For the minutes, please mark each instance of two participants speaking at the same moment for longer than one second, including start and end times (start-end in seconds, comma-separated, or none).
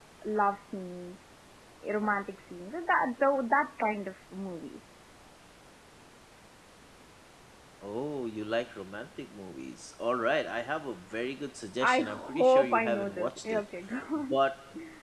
11.8-13.7